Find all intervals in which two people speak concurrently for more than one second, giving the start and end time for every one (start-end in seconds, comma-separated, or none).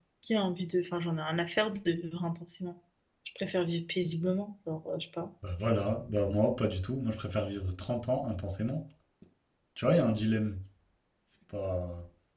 none